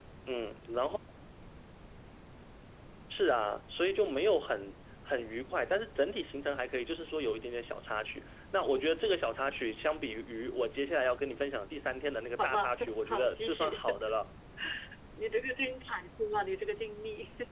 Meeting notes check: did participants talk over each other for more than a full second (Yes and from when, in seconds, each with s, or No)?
Yes, from 12.4 s